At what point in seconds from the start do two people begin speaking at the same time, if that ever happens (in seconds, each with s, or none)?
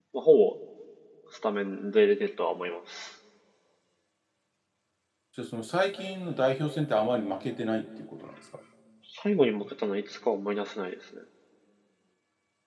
none